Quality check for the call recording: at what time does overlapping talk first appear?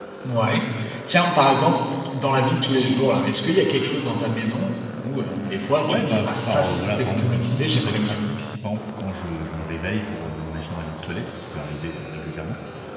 6 s

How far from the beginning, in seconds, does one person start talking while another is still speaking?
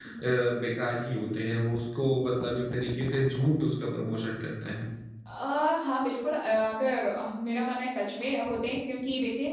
none

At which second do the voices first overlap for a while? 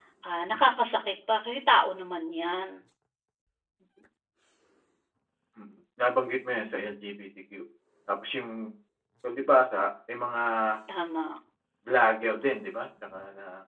none

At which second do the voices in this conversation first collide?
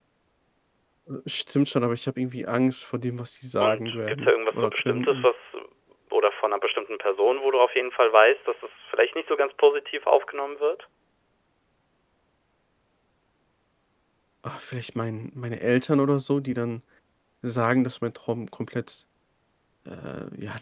4 s

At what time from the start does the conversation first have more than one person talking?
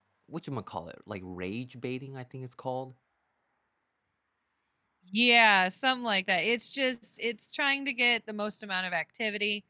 none

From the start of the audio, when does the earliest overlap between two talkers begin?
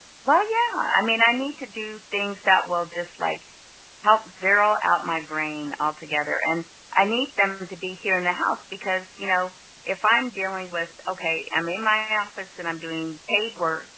none

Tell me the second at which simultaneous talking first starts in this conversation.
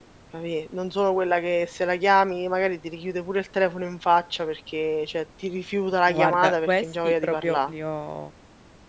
6 s

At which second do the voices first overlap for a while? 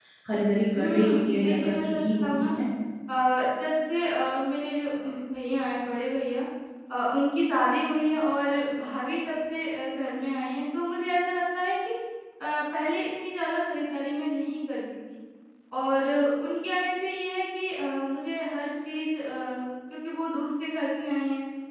1 s

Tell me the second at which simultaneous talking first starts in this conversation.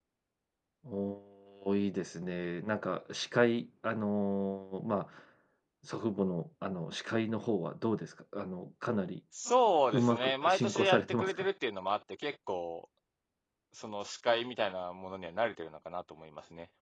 10 s

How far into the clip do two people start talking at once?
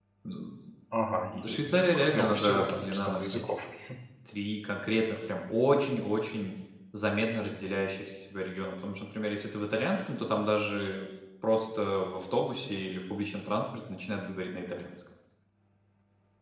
1 s

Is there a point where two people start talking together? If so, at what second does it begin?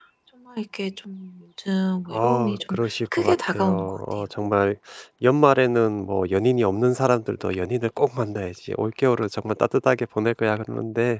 2 s

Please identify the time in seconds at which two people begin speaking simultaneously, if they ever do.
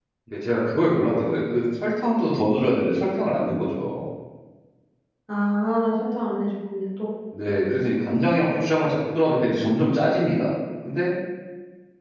none

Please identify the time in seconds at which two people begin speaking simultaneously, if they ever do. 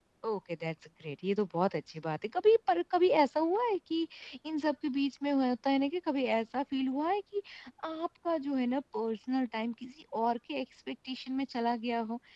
none

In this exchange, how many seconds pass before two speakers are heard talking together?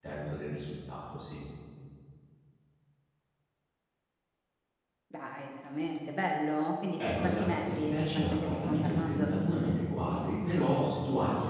7 s

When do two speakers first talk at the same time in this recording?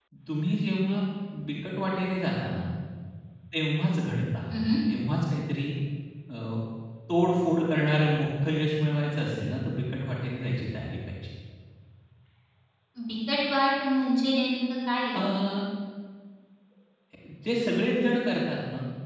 none

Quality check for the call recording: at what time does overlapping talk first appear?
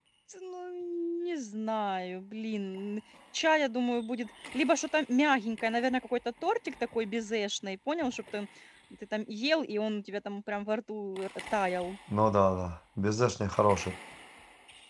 none

